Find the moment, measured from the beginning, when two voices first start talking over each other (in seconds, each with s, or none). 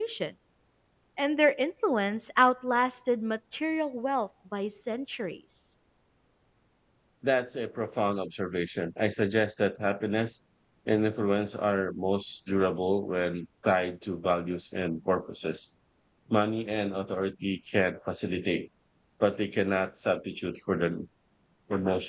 none